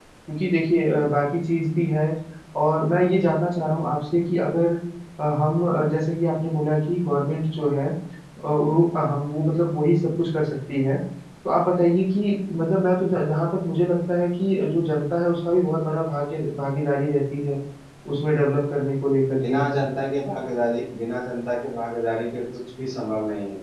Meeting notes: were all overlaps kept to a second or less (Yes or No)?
Yes